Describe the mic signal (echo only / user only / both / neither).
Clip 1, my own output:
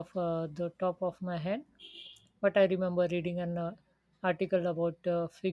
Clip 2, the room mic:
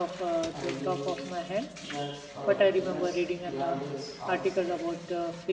both